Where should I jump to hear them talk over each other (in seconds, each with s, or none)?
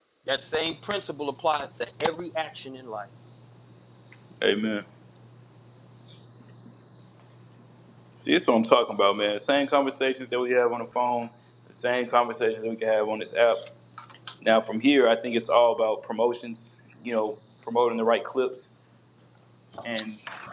none